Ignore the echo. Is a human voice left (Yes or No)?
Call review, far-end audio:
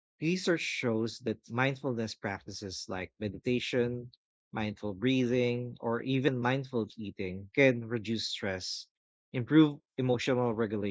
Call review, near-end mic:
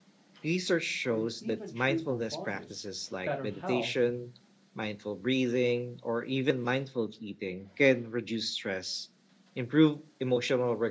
Yes